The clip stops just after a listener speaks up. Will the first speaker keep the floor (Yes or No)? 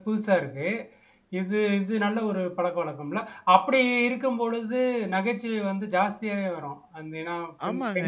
No